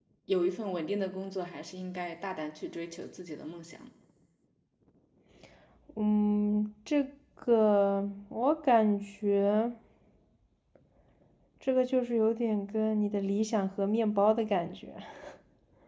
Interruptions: none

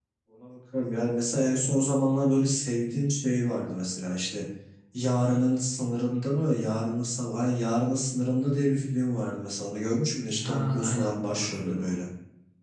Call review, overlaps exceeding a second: present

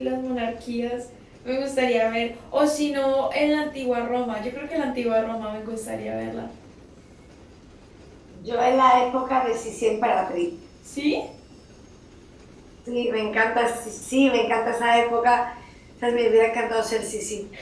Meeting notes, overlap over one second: none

